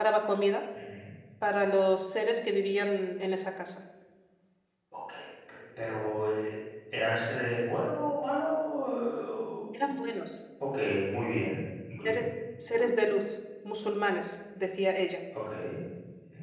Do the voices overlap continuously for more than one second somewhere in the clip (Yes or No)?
No